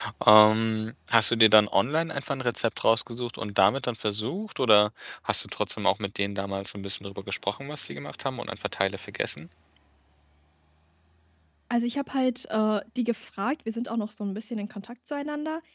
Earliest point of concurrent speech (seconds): none

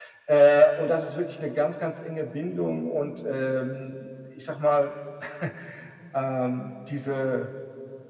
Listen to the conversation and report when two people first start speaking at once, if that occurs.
none

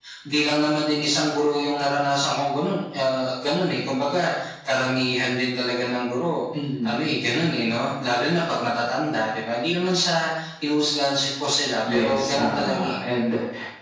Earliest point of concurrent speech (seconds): 11.9 s

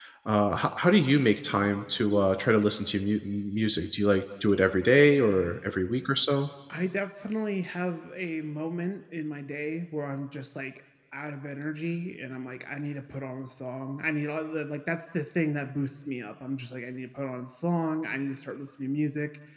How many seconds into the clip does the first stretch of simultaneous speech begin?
none

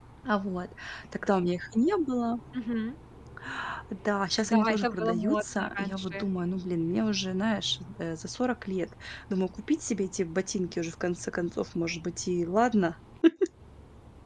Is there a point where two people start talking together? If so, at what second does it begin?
4.4 s

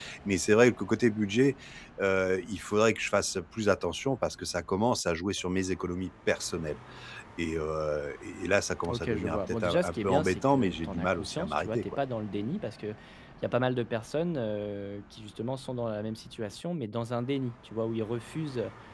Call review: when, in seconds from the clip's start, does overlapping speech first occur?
8.8 s

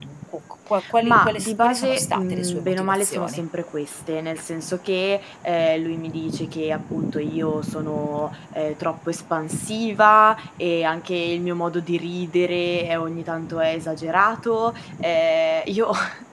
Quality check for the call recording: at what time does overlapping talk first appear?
1.0 s

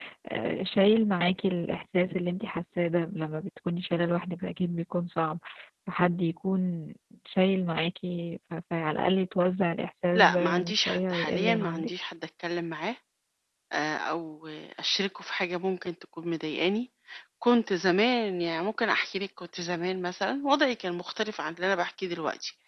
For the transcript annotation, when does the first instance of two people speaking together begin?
10.2 s

